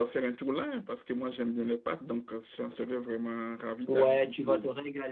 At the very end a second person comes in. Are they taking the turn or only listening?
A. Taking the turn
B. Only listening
A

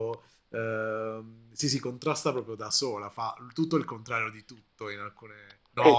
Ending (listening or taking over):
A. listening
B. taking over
B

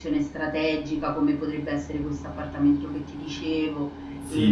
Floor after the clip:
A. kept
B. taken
B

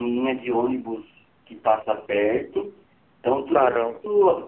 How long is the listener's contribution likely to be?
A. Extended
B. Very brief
B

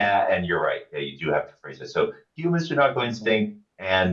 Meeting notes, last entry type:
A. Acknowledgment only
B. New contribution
A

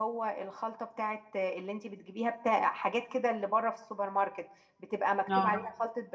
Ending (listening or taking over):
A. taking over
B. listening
B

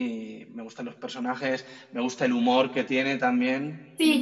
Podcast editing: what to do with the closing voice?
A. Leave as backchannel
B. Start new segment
B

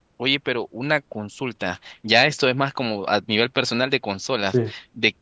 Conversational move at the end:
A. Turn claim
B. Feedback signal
B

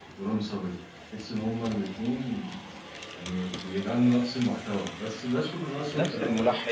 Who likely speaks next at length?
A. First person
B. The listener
B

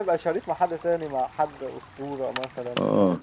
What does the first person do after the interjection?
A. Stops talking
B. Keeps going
A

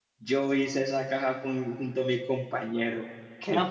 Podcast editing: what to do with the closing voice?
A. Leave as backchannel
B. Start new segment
B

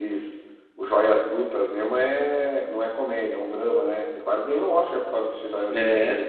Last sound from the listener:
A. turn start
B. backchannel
A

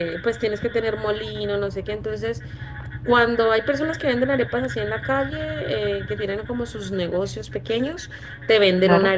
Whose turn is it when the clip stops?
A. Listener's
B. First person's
B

